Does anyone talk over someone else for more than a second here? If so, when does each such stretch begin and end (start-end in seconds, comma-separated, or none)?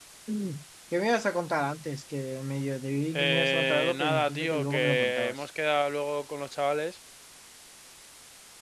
3.1-5.4